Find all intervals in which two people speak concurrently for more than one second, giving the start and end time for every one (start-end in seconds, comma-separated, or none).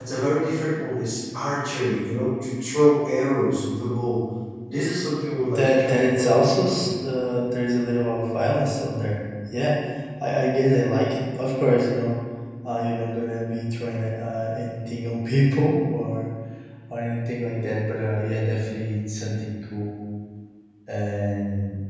5.6-6.8